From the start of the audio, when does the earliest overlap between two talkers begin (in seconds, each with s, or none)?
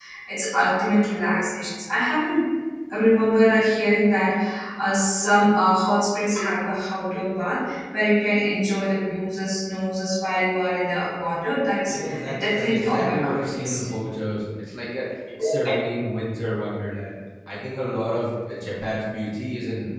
11.8 s